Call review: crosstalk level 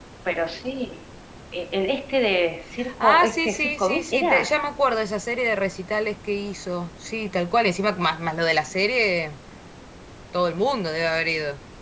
present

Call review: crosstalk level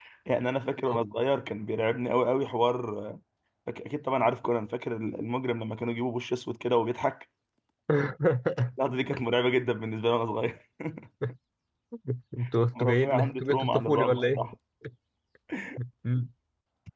present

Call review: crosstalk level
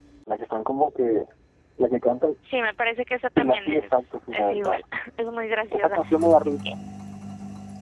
present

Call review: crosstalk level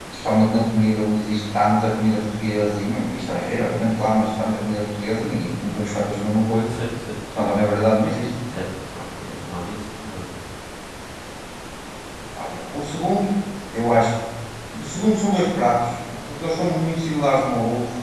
none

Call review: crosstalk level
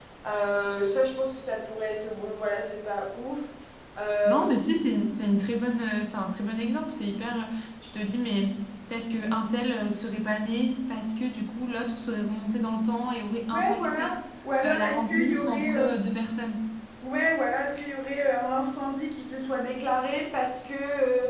present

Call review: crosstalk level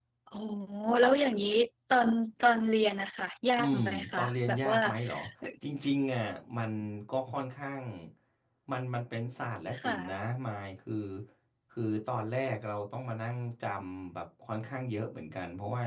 present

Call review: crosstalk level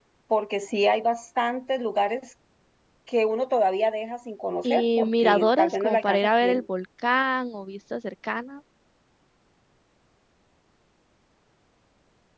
present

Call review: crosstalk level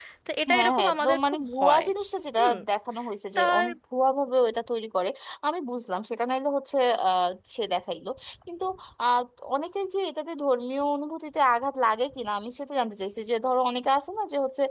present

